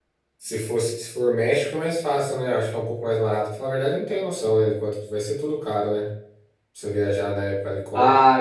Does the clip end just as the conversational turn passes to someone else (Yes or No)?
Yes